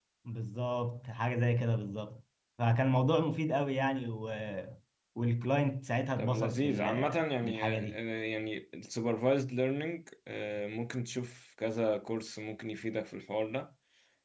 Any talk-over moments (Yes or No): Yes